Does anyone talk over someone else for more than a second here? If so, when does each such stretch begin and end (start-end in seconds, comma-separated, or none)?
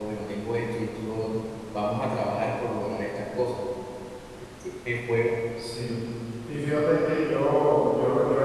none